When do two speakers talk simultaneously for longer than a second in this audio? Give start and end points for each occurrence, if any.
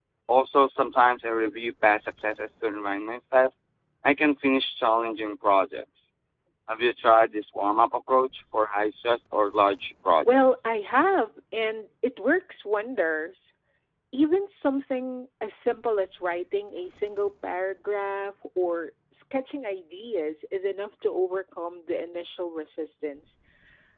none

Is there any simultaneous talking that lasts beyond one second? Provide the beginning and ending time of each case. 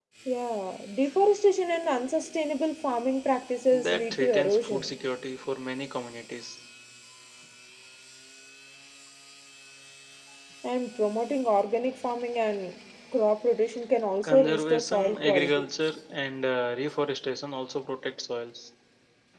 3.7-4.9, 14.2-15.6

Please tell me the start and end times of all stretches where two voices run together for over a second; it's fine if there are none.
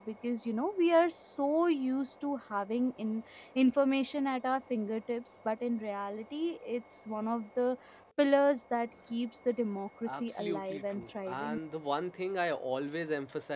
10.1-11.6

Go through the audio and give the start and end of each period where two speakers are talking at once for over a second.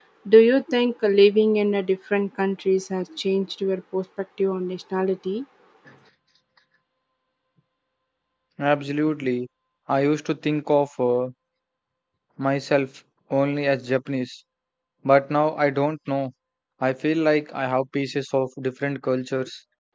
none

